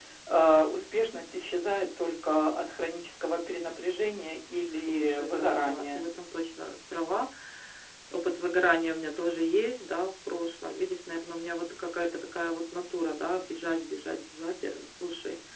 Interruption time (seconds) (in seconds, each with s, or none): 4.7 s